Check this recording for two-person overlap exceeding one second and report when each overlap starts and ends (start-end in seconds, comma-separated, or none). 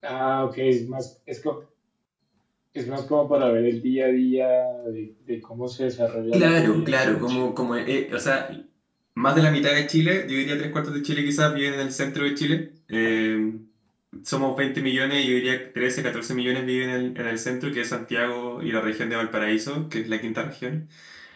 6.3-7.5